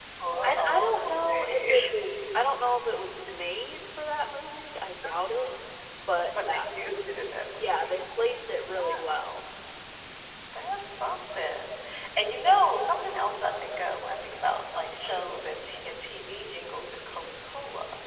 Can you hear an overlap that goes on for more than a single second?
Yes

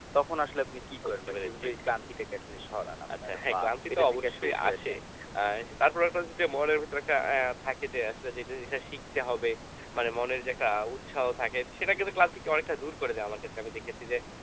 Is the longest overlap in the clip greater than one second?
Yes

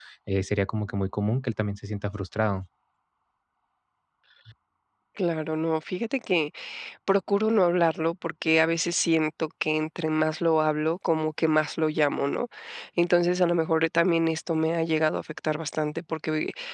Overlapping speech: No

